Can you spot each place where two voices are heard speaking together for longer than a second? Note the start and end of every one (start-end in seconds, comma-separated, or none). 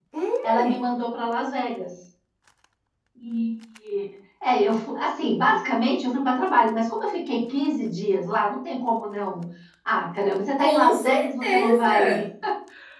10.6-12.3